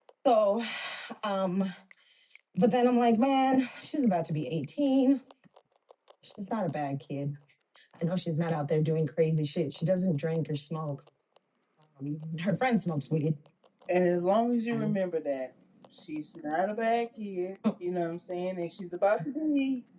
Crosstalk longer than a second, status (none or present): none